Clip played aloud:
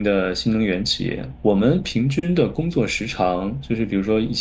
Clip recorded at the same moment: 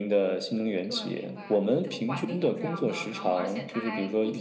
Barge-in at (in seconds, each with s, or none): 0.8 s